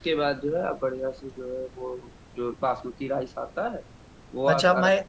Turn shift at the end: Yes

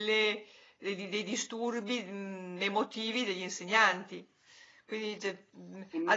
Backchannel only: Yes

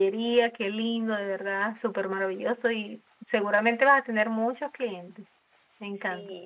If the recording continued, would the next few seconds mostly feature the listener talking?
Yes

